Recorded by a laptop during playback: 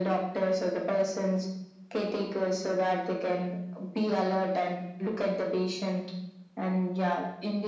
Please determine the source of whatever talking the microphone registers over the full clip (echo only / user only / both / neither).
echo only